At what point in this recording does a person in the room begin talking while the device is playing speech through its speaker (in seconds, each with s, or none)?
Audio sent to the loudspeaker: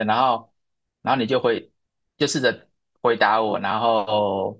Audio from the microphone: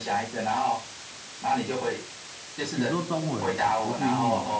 2.7 s